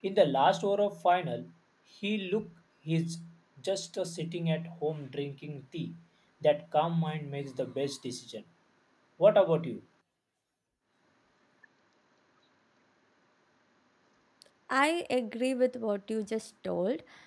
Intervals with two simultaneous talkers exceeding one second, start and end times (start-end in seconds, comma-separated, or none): none